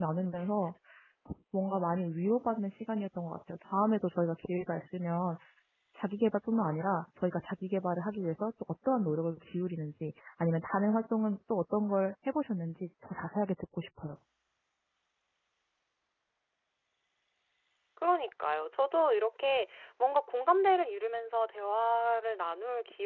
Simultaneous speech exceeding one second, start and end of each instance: none

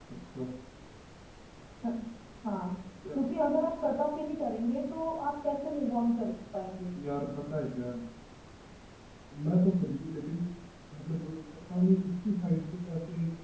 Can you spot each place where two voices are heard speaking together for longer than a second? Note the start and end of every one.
none

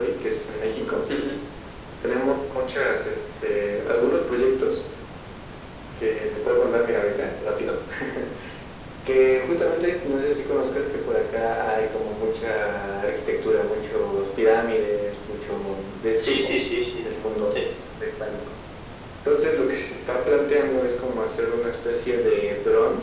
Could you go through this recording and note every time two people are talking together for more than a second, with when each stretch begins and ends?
none

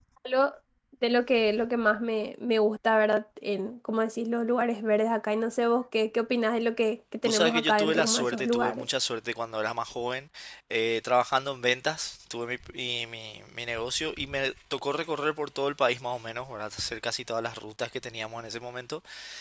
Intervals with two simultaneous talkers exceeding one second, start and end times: 7.2-8.9

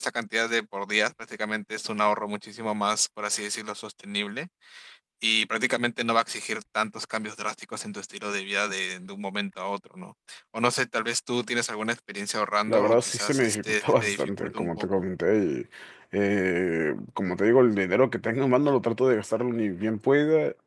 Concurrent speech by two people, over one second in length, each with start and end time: 12.7-14.9

